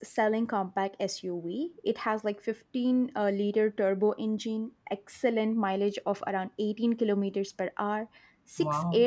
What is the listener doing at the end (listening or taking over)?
listening